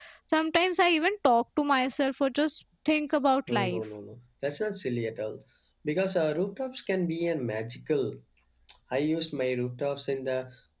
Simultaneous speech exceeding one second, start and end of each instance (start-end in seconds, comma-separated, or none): none